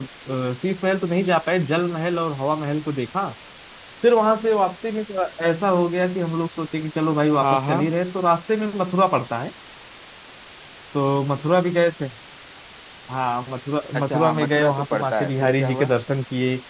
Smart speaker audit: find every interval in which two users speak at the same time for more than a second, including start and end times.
13.9-15.9

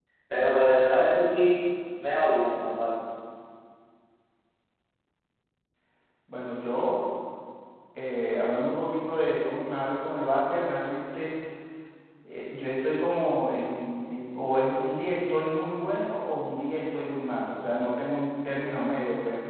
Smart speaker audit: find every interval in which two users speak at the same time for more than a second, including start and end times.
none

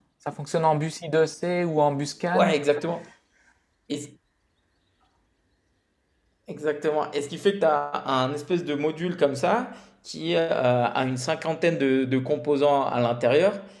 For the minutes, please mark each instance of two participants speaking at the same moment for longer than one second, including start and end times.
none

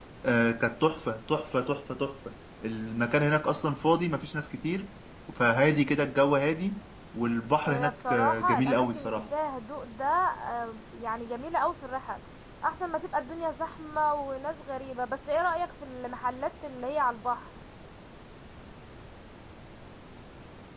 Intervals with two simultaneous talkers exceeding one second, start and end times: 7.7-9.2

